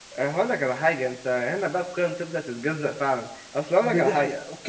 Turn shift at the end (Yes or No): Yes